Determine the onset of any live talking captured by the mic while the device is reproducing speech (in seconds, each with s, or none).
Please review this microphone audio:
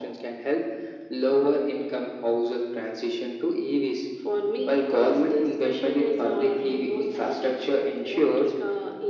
none